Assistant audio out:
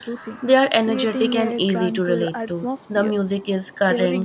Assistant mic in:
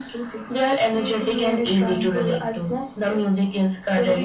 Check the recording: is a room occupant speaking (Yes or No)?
No